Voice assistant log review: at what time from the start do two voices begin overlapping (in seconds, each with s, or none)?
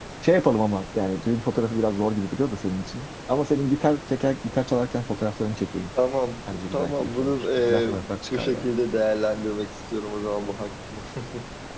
6.5 s